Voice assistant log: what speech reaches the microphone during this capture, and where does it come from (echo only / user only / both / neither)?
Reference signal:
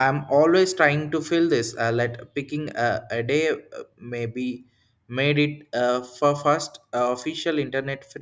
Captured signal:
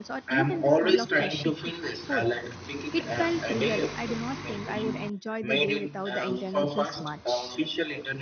both